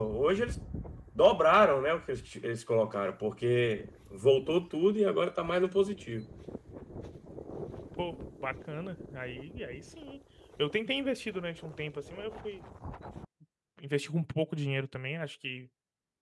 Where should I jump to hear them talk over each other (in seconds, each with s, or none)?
none